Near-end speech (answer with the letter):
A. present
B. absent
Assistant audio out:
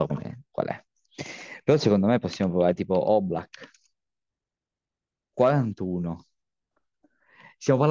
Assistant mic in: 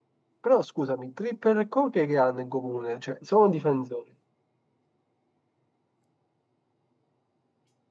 A